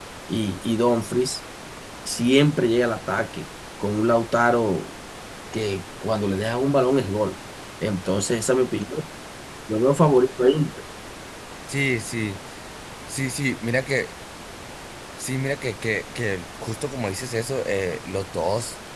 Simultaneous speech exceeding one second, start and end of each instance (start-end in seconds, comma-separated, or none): none